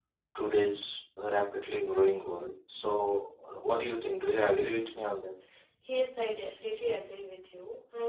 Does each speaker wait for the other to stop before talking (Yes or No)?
Yes